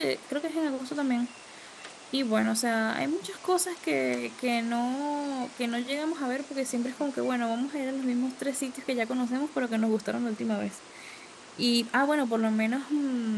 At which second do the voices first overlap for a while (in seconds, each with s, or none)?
none